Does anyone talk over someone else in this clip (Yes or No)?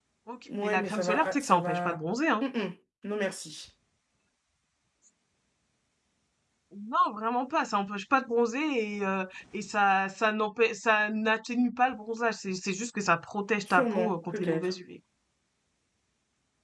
Yes